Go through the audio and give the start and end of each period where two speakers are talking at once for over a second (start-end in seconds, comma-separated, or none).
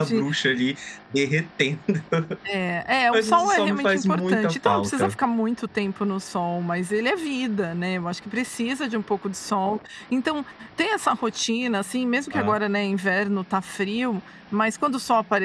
3.1-5.1